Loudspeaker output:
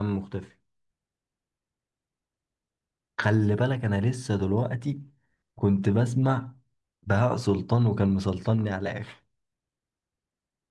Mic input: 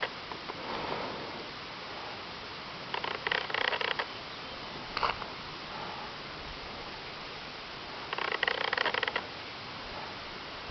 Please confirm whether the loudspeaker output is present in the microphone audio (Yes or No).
No